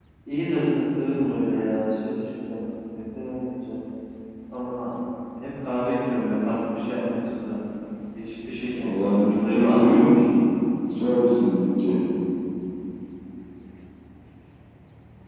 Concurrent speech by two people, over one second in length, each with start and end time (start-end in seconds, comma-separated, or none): 8.8-10.0